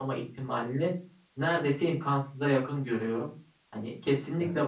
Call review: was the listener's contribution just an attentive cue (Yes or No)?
Yes